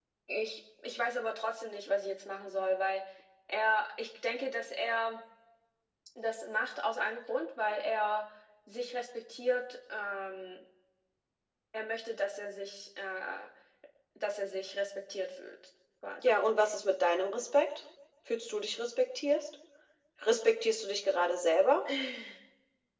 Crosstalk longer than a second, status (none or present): none